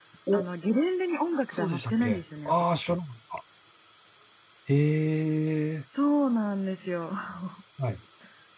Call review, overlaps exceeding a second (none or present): present